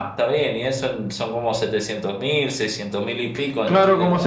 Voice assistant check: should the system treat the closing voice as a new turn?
Yes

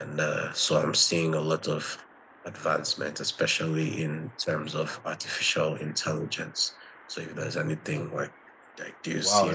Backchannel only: No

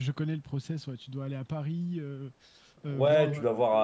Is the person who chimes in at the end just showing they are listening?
No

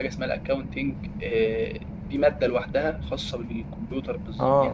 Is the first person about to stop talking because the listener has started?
Yes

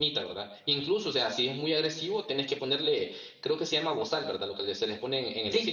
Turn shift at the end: Yes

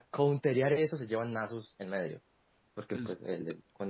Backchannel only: Yes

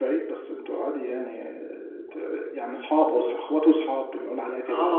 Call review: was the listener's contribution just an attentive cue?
No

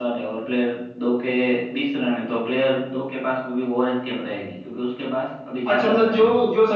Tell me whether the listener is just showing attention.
No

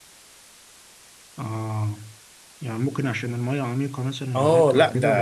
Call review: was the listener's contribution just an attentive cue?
No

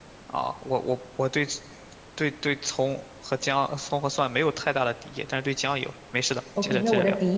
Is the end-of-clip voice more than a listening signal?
Yes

